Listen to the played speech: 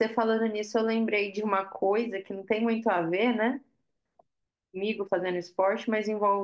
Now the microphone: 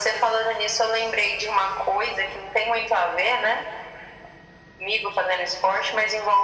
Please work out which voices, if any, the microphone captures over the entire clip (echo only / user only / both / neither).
echo only